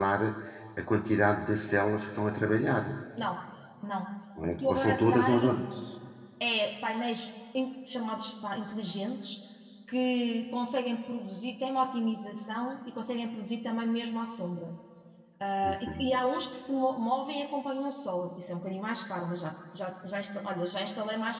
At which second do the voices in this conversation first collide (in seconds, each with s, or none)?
4.4 s